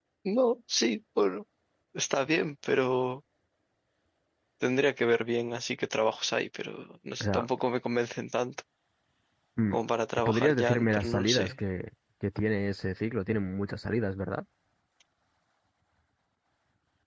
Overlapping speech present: Yes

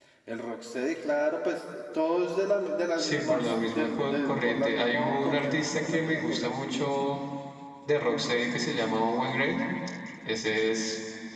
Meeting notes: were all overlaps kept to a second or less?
No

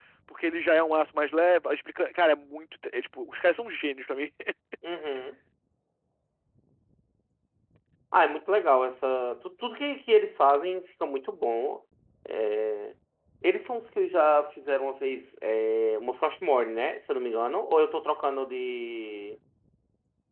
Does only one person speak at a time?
Yes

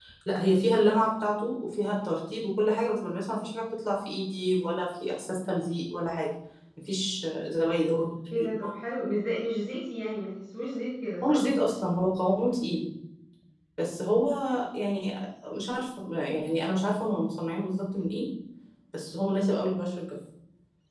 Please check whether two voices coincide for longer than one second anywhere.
No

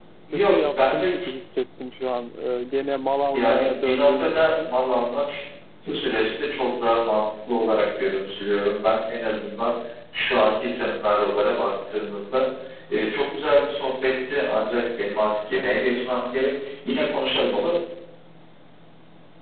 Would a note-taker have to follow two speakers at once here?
Yes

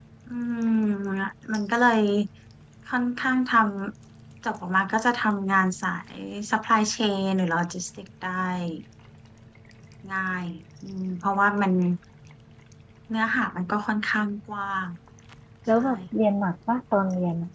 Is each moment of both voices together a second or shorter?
Yes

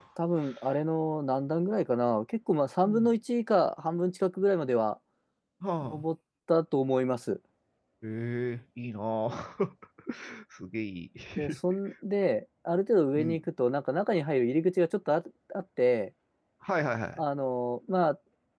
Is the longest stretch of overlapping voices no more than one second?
Yes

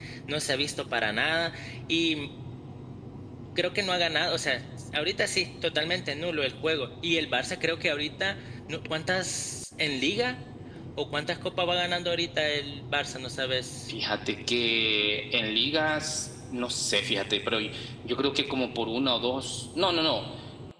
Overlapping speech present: No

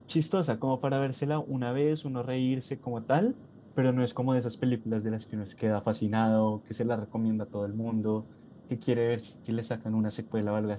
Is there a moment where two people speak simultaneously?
No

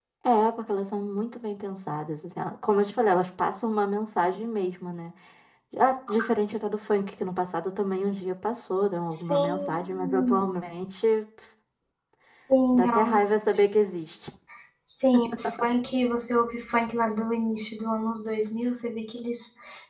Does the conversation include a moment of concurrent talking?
Yes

